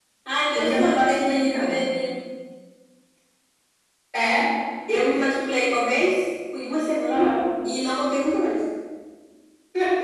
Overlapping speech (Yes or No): Yes